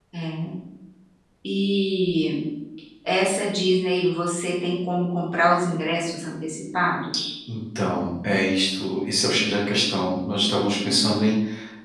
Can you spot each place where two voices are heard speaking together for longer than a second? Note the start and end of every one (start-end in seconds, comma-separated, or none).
none